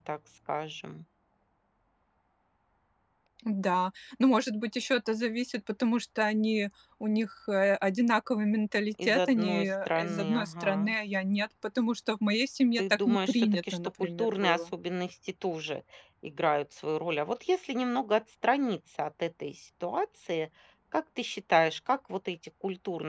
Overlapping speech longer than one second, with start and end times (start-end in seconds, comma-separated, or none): 9.0-10.9, 12.8-14.7